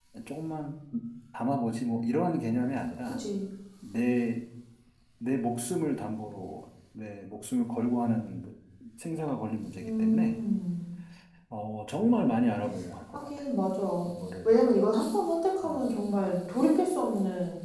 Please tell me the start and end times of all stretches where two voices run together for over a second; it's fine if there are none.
none

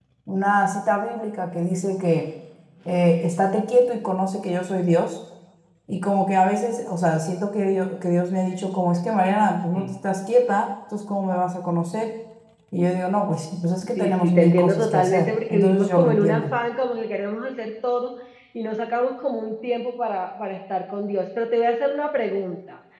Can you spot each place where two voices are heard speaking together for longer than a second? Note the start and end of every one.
14.0-16.6

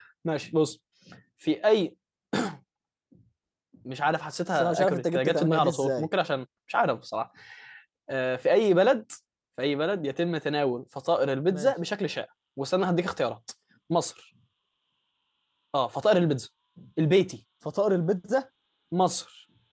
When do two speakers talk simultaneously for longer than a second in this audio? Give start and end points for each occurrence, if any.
4.5-6.1

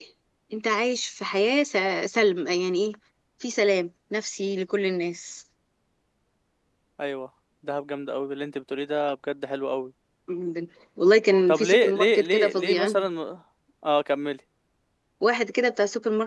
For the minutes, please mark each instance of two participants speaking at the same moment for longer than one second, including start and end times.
11.5-12.9

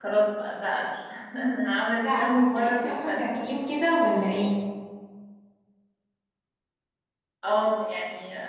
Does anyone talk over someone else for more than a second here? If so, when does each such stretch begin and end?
1.9-3.3

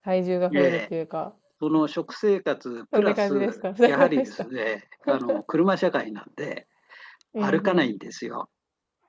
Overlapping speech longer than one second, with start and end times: 2.9-4.3

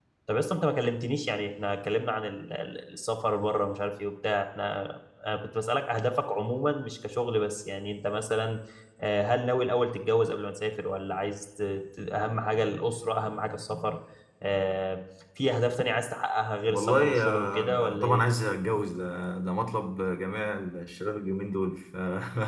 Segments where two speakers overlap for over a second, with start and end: 16.7-18.2

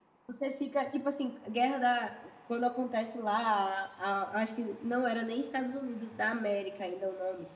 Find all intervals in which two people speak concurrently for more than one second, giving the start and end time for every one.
none

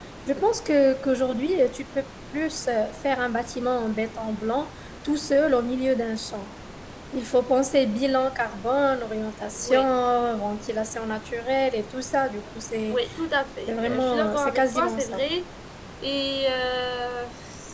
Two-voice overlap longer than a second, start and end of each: 13.7-15.2

